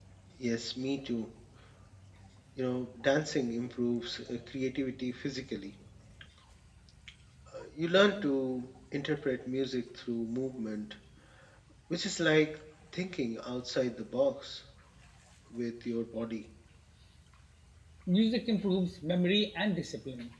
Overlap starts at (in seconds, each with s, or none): none